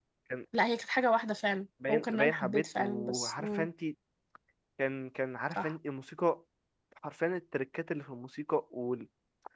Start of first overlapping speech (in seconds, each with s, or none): 1.9 s